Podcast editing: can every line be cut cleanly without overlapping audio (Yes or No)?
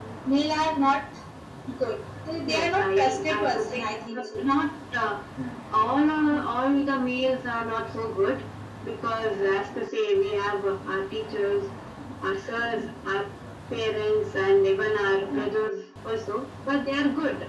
No